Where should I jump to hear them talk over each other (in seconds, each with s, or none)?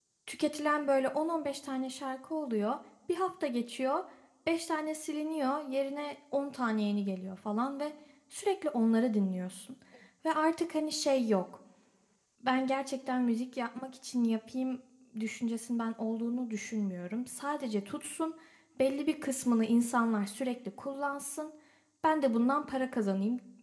none